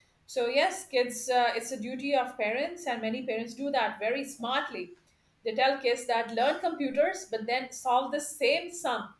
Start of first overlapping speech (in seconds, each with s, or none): none